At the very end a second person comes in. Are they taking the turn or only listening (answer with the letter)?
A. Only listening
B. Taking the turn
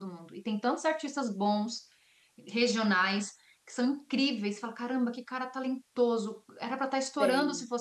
A